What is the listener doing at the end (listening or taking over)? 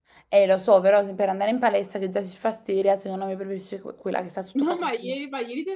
taking over